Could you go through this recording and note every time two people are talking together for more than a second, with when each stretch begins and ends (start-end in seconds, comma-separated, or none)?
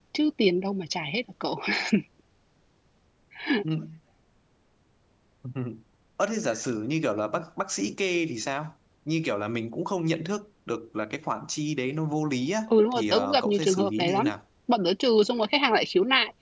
12.7-14.3